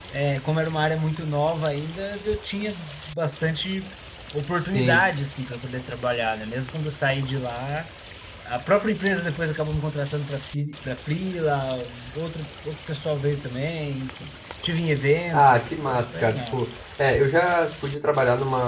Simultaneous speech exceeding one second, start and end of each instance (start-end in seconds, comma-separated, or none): 15.3-16.6